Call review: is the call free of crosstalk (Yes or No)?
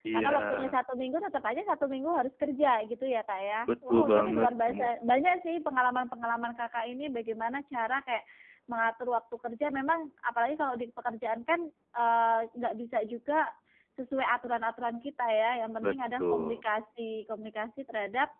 No